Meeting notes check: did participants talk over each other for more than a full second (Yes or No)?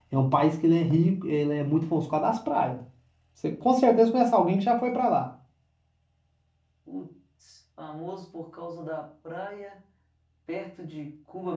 No